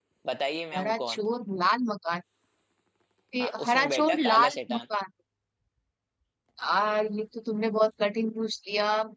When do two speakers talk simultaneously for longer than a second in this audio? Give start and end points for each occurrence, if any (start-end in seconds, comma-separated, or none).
3.4-4.8